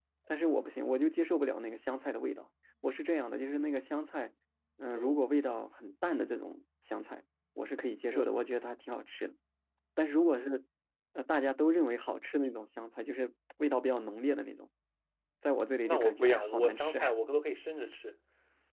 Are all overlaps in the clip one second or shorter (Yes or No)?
No